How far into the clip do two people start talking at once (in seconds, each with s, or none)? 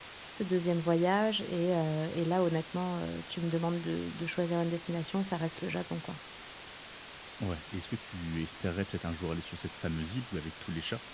none